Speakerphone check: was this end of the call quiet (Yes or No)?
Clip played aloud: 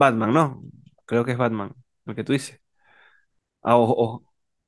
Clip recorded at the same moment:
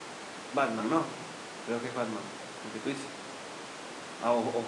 Yes